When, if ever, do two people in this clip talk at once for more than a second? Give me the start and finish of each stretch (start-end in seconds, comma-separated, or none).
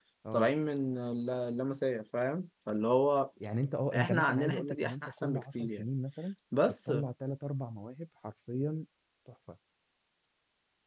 3.9-5.9